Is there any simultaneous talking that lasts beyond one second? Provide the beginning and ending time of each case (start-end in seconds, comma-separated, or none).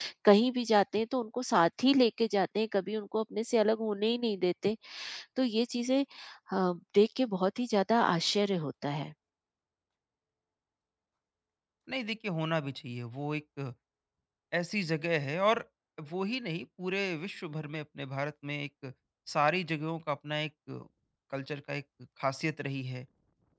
none